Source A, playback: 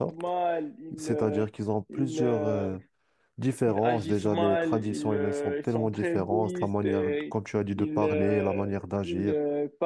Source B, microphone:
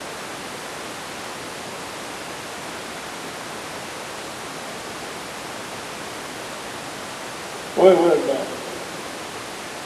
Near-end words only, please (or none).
Ouais, ouais, ben,